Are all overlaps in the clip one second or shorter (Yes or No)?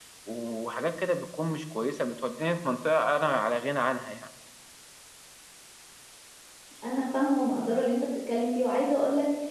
Yes